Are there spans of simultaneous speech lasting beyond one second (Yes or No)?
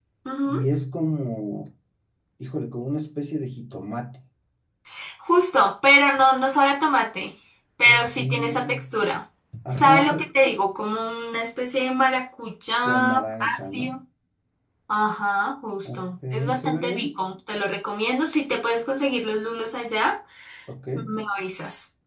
Yes